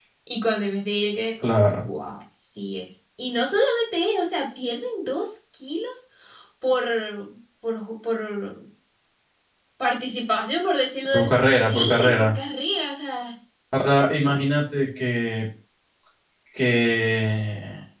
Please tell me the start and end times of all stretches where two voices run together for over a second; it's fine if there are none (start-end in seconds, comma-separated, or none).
11.1-12.3